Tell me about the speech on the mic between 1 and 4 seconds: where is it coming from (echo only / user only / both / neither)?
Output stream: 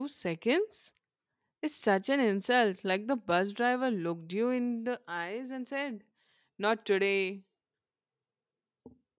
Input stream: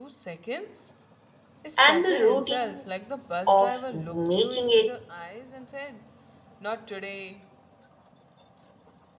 both